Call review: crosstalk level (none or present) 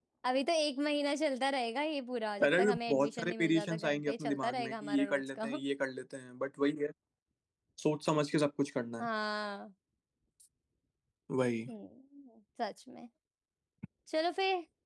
present